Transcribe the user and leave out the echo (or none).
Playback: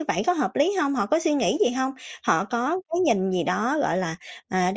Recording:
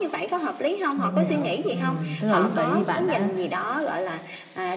Mình hiểu. Ừm, tức là lúc đấy thì bạn đã,